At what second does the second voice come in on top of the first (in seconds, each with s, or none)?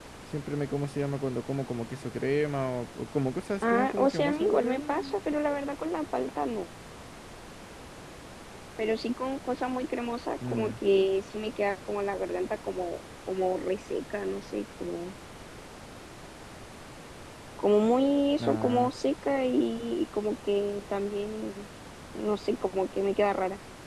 3.6 s